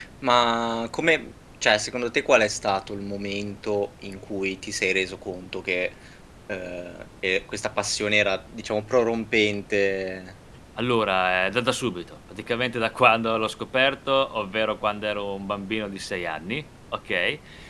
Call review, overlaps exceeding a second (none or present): none